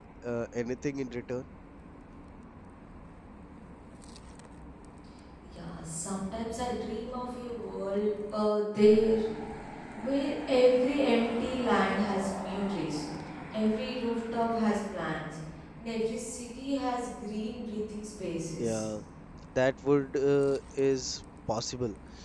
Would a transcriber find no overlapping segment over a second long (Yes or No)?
Yes